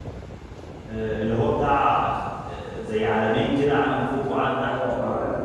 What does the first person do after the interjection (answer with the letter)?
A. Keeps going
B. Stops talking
B